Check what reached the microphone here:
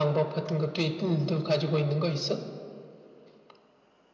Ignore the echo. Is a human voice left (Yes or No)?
No